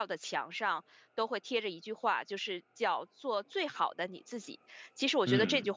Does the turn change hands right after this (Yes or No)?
No